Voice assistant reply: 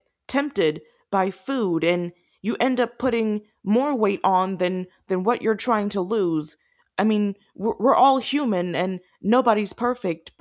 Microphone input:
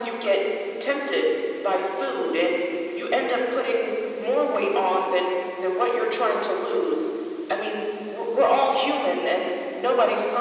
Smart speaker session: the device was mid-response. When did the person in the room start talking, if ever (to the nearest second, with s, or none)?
none